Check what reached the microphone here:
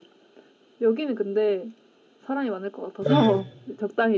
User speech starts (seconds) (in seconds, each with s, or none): 3.0 s